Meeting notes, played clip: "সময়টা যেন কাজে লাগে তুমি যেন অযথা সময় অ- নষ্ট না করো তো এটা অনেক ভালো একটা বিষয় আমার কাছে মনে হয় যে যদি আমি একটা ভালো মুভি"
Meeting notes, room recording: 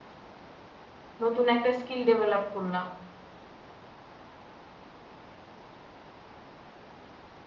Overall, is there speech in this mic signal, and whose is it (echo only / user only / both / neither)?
user only